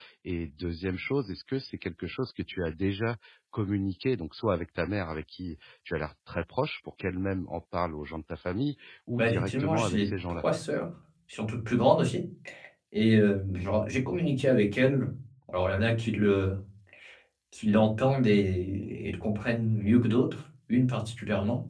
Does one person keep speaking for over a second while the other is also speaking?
Yes, from 9.2 s

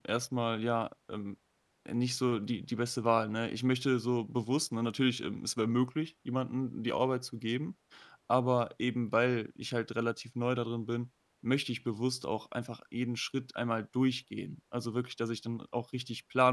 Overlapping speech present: No

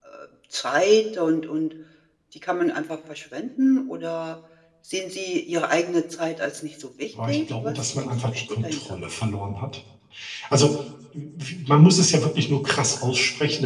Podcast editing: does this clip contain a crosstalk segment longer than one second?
Yes, from 7.2 s

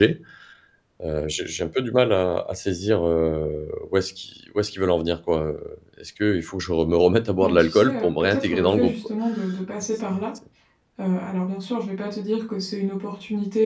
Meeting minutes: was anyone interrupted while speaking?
Yes, from 7.4 s

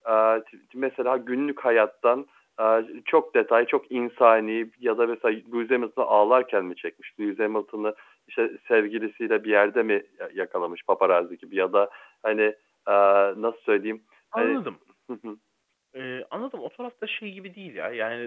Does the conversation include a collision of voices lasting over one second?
No

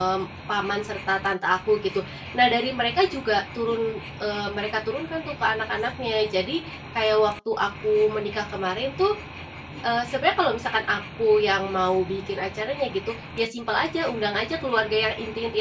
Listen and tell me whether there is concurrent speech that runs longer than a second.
No

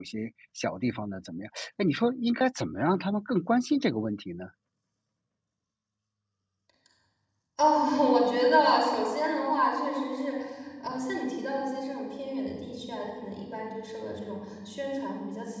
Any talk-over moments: No

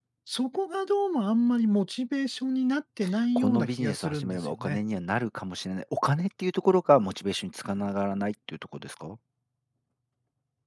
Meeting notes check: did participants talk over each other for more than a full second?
Yes, from 3.4 s

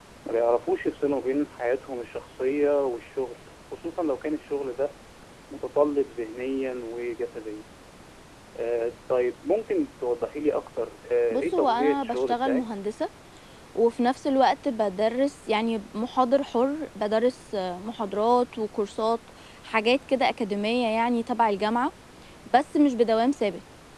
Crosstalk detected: Yes, from 11.3 s

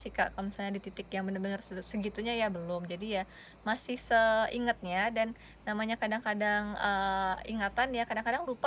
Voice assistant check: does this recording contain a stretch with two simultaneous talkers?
No

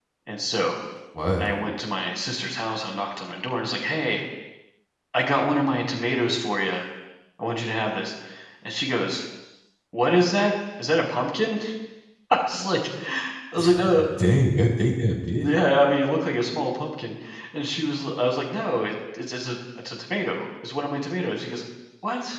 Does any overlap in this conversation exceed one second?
No

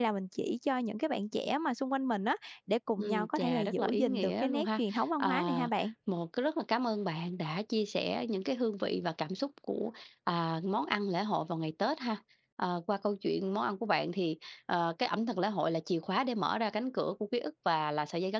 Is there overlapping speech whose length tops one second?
Yes, from 3.0 s

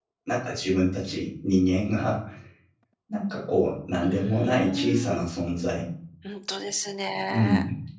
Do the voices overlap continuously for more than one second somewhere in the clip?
Yes, from 4.0 s

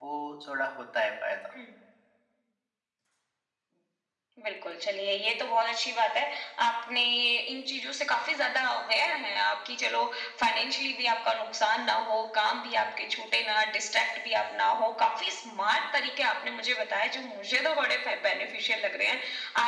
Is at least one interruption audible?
No

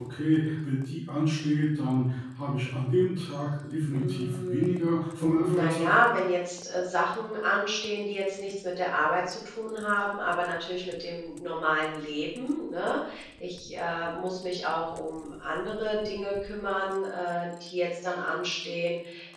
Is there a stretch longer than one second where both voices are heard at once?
Yes, from 3.9 s

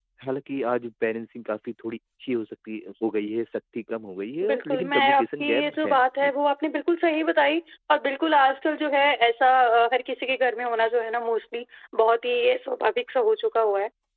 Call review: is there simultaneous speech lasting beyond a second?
Yes, from 4.4 s

